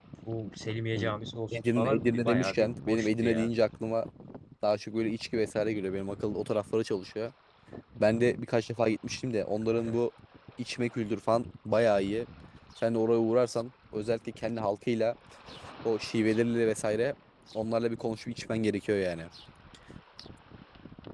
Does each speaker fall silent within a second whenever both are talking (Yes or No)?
No